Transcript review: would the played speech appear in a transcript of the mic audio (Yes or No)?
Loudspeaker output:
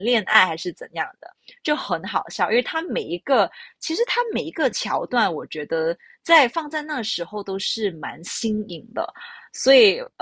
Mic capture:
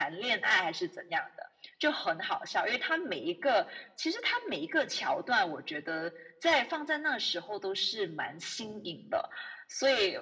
Yes